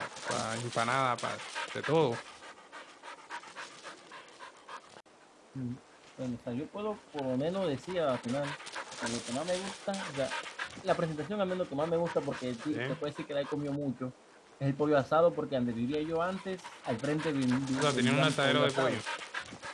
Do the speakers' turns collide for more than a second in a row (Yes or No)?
Yes